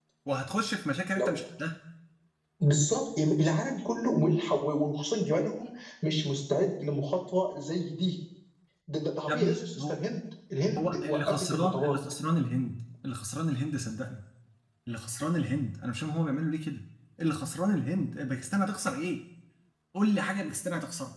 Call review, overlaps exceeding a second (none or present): present